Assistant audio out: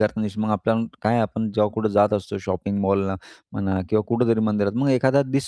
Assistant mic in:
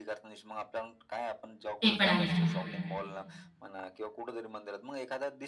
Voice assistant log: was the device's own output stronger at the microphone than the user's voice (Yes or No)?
No